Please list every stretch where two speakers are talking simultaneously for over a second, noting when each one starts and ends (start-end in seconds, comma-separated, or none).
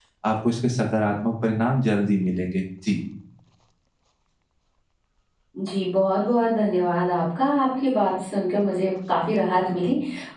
none